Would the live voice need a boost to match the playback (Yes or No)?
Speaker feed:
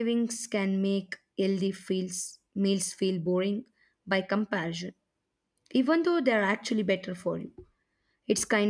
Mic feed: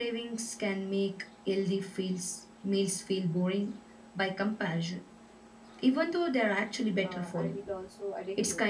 Yes